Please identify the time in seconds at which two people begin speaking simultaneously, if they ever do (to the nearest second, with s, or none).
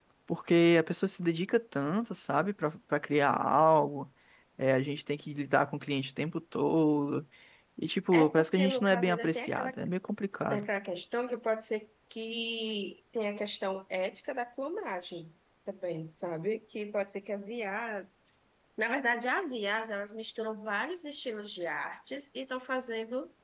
8 s